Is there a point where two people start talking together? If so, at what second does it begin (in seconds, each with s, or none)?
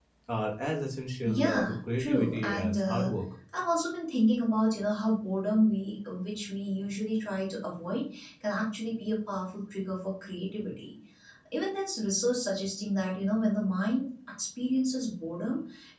1.2 s